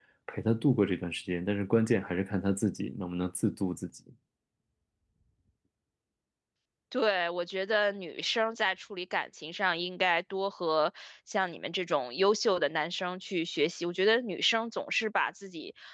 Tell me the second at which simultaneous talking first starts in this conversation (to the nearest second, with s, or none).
none